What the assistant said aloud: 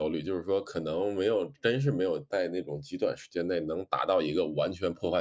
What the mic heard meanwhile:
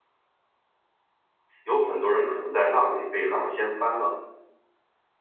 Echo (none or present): none